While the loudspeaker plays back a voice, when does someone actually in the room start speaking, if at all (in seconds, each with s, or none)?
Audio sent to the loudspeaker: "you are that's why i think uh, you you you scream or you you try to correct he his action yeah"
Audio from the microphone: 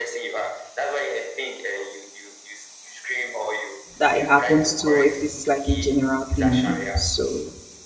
4.0 s